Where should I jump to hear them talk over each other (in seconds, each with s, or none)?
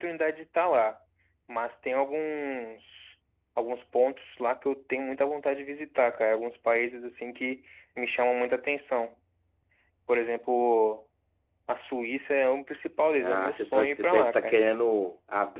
13.1 s